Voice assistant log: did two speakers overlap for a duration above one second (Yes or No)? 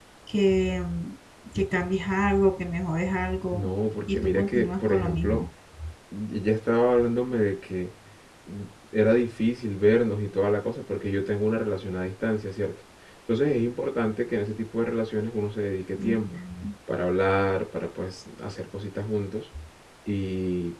Yes